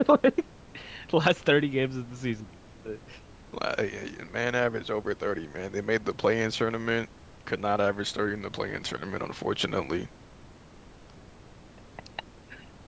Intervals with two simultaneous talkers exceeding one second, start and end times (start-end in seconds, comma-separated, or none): none